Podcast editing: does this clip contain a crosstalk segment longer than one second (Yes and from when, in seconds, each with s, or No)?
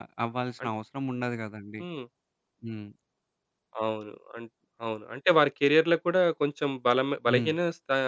No